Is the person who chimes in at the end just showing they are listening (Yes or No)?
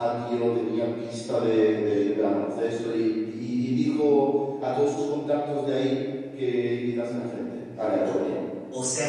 No